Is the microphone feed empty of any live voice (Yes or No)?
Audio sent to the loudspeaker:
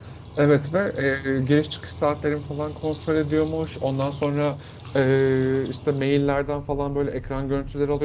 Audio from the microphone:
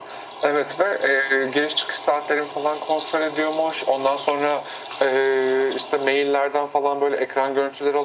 Yes